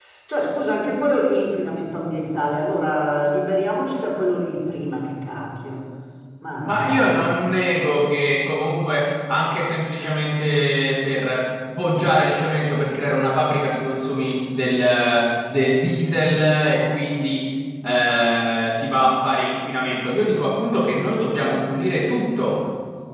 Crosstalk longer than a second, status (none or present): none